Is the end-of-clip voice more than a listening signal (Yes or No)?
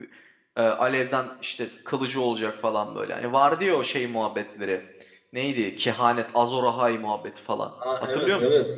Yes